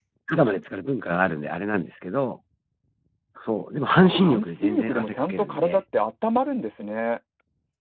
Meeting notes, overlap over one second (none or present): present